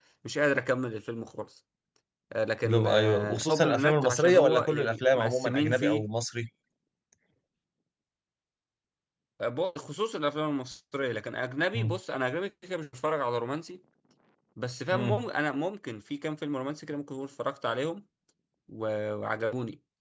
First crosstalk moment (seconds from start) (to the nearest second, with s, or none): 3 s